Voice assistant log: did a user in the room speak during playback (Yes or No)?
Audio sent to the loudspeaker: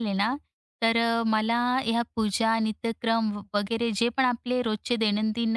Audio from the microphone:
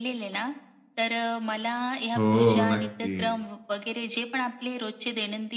Yes